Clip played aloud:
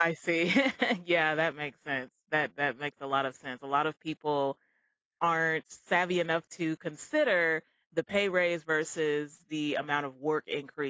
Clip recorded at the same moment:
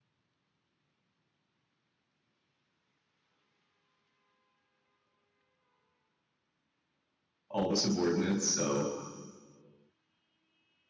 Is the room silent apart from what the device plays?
No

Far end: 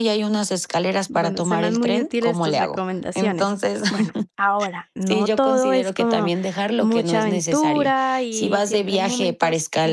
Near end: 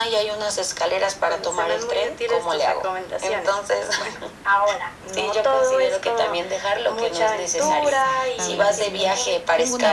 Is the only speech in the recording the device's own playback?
No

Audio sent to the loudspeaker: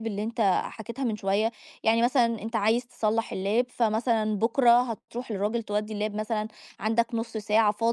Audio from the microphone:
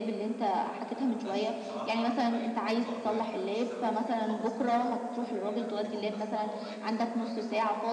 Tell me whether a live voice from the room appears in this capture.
Yes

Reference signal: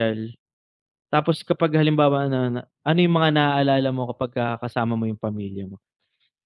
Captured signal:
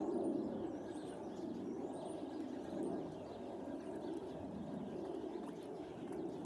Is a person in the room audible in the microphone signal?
No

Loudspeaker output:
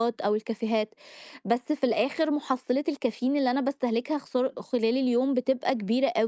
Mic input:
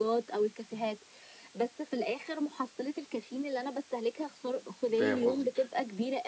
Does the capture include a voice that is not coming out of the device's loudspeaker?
Yes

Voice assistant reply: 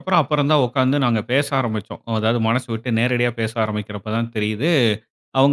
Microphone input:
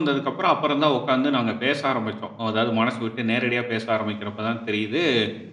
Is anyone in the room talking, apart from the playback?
No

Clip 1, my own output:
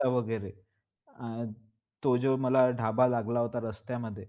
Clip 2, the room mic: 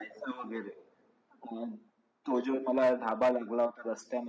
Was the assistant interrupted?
No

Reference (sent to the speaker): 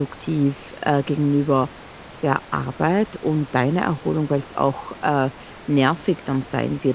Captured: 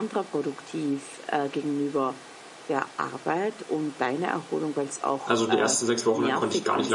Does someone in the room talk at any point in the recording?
Yes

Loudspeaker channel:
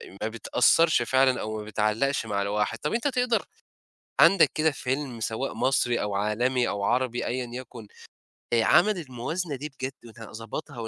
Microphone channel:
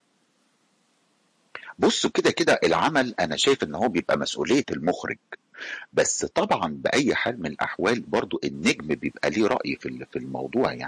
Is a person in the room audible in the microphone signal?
Yes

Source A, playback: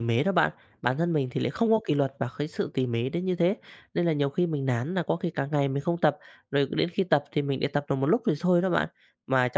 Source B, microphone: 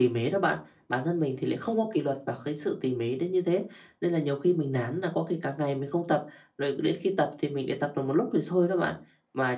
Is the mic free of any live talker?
Yes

